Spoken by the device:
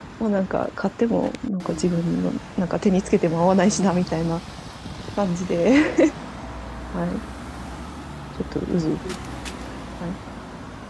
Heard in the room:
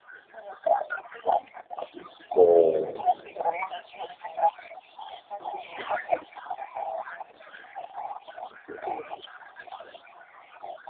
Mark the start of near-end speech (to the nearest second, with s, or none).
2 s